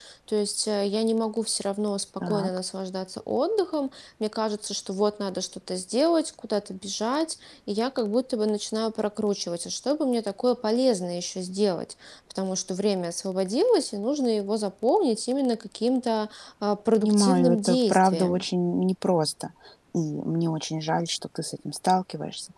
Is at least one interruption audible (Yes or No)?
Yes